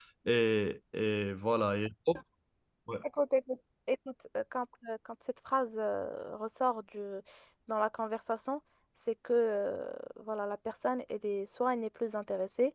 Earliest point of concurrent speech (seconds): none

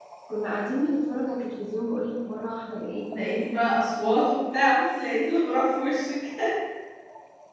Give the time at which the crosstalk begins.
none

